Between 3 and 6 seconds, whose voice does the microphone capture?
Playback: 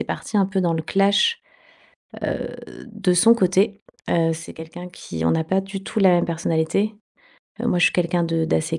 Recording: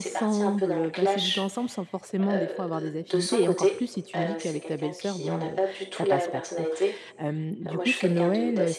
both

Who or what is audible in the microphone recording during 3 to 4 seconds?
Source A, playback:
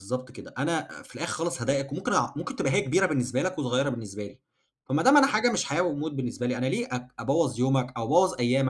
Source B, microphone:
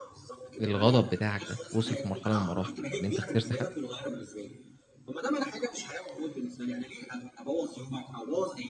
both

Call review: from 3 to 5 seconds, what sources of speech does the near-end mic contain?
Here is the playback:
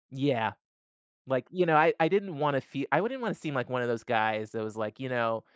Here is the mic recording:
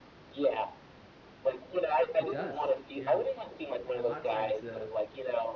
both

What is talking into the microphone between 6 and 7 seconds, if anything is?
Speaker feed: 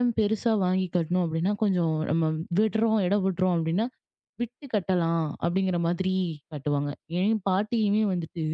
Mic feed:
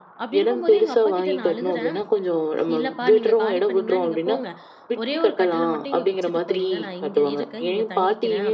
both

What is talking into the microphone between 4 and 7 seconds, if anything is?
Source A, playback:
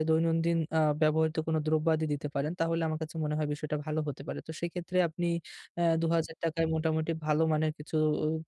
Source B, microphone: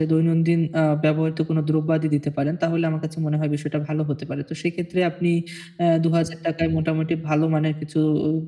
echo only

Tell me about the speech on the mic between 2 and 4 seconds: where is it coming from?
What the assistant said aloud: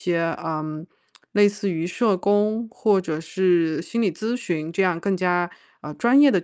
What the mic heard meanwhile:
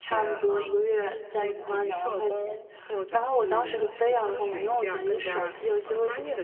both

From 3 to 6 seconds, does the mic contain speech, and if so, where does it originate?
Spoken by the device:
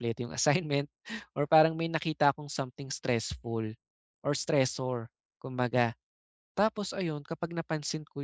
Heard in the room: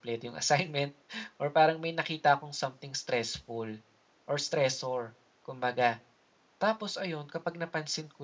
echo only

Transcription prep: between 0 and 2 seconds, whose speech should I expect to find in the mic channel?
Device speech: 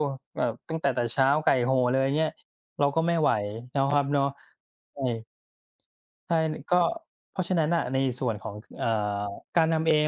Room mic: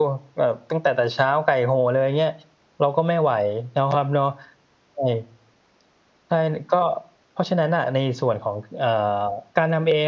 echo only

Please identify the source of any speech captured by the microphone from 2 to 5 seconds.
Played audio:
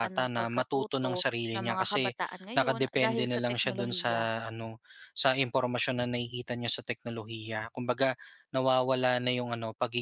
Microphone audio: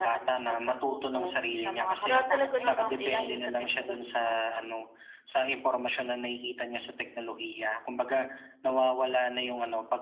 both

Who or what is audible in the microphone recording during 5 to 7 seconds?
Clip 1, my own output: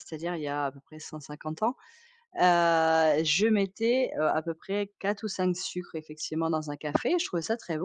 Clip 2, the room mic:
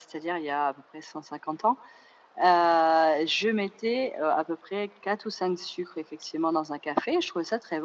echo only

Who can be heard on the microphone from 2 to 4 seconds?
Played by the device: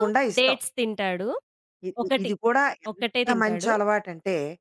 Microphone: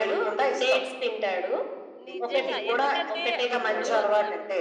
both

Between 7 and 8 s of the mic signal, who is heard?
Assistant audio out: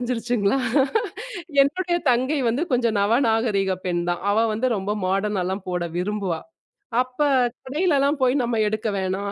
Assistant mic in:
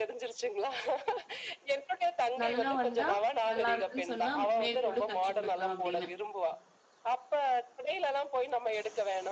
echo only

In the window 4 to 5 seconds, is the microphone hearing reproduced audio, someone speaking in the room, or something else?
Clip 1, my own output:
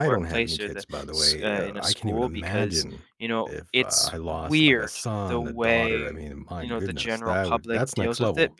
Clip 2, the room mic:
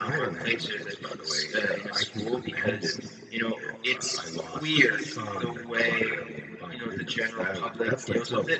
echo only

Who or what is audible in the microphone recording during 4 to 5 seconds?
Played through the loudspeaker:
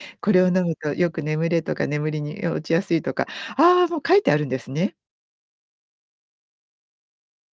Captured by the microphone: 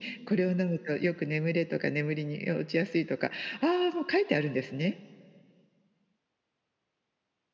echo only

